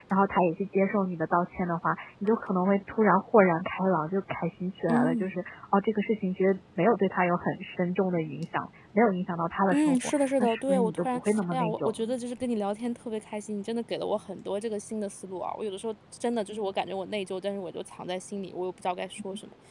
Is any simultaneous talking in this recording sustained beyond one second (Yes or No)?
Yes